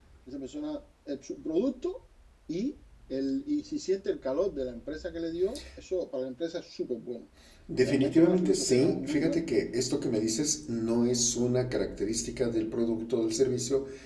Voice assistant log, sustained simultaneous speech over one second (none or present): present